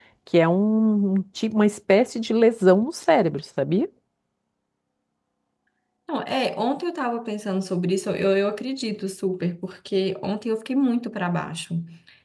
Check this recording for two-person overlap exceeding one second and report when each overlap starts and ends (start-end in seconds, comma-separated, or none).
none